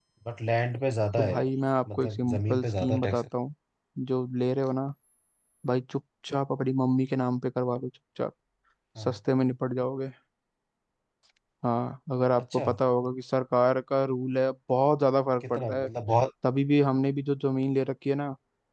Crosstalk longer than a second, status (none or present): present